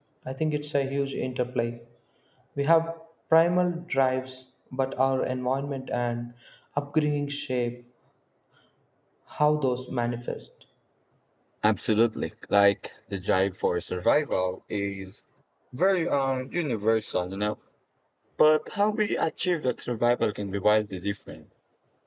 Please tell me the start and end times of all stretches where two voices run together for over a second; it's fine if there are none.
none

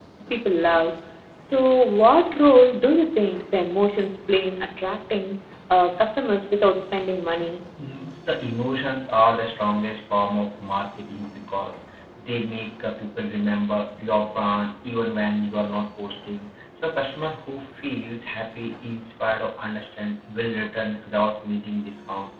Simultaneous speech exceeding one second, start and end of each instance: none

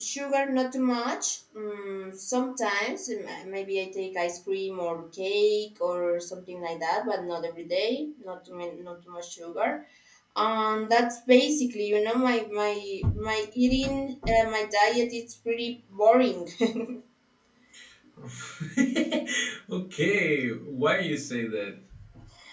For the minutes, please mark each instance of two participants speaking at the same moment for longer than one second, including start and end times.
none

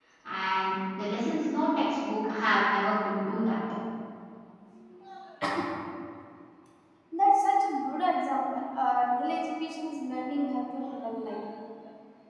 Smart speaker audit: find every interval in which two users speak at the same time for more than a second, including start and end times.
none

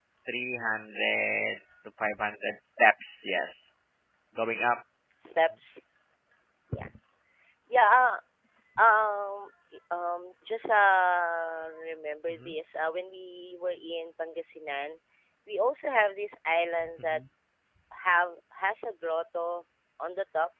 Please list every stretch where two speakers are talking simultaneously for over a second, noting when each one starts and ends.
none

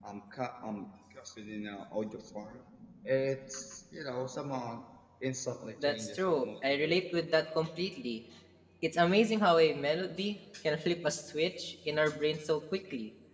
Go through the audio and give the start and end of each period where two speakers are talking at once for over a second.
5.8-7.4

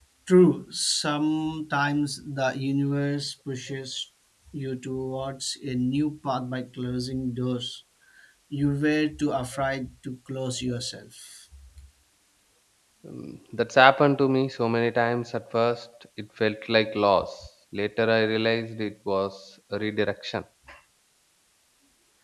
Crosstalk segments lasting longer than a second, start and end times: none

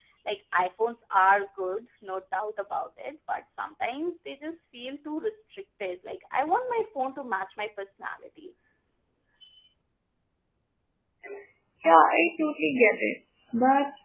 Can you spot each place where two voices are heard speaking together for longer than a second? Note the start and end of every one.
none

